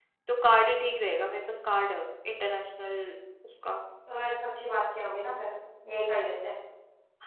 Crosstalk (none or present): none